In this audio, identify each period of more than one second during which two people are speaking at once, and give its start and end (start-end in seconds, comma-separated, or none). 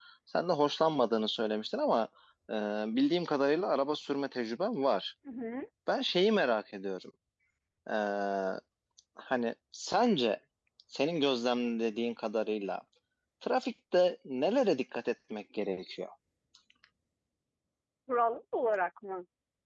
none